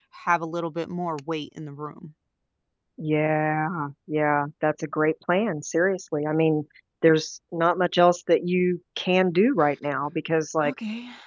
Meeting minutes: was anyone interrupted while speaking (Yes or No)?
No